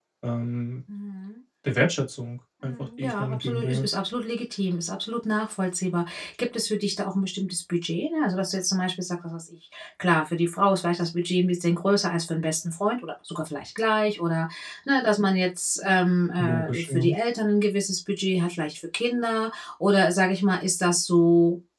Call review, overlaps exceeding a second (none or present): present